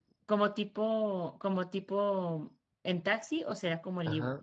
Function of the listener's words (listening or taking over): taking over